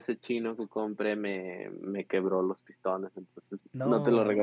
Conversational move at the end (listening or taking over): listening